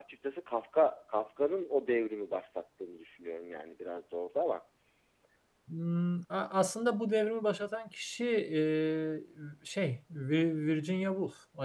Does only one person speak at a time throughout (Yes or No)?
Yes